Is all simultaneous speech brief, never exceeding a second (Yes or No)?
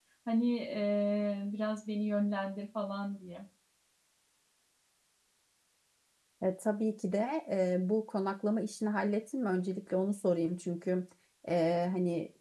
Yes